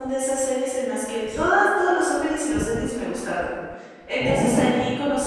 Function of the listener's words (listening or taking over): listening